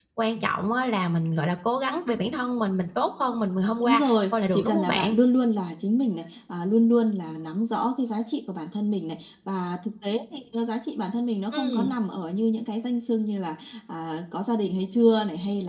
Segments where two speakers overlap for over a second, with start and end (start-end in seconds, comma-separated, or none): 3.8-5.2